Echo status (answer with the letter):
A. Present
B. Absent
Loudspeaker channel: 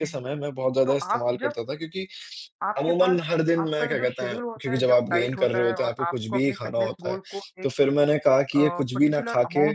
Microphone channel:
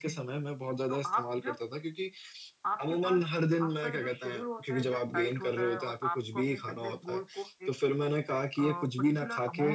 A